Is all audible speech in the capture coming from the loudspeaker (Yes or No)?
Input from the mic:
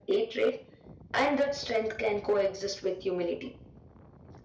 Yes